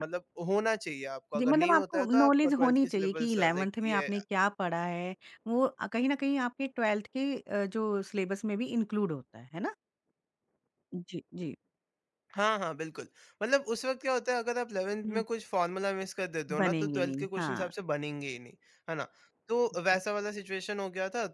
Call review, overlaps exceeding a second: present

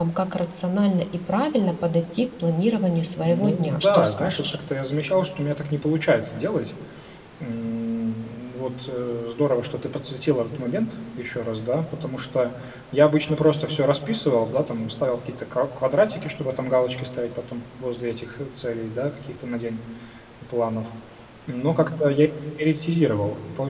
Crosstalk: present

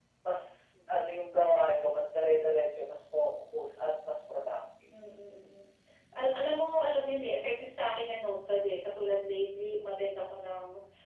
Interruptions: none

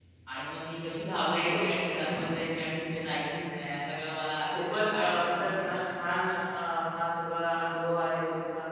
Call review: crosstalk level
present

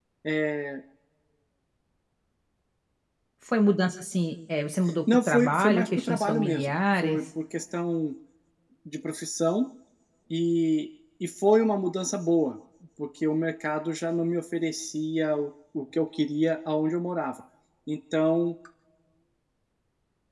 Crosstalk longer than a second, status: present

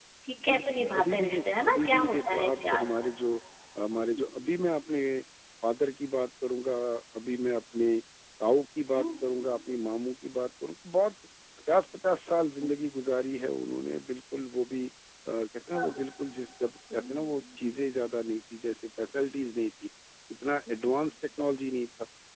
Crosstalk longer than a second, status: present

